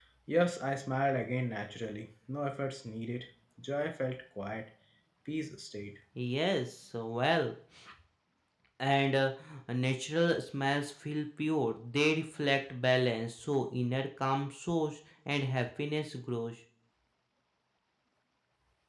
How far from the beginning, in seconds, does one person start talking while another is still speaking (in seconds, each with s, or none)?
none